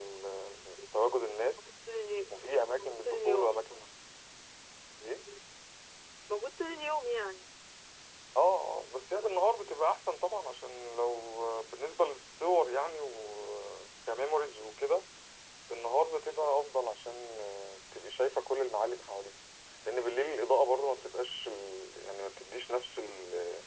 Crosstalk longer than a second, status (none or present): present